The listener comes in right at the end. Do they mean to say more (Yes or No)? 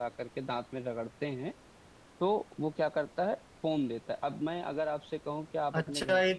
Yes